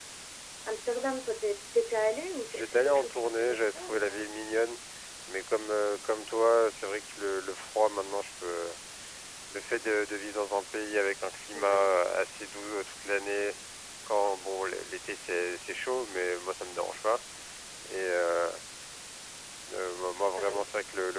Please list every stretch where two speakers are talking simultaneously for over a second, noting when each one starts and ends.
2.5-4.2

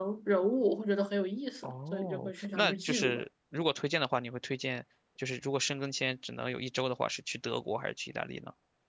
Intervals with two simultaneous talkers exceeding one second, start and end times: 1.6-3.2

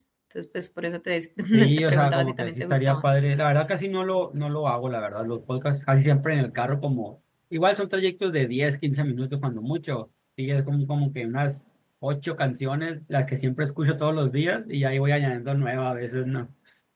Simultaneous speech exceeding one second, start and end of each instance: 1.7-3.1

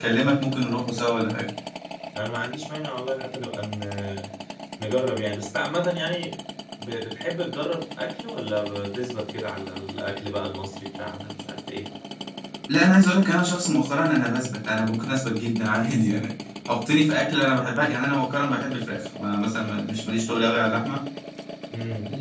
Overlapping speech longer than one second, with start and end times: none

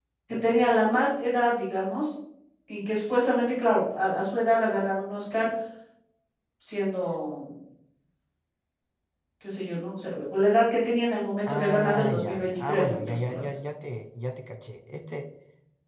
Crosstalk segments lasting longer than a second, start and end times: 11.5-13.4

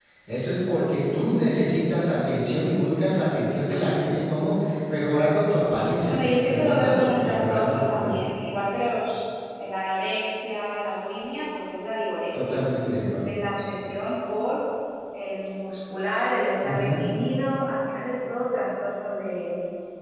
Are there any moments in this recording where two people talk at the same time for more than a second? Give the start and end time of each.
6.1-8.3

